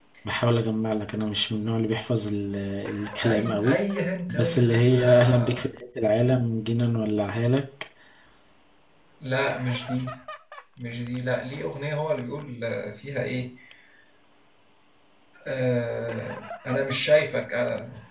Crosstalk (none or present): present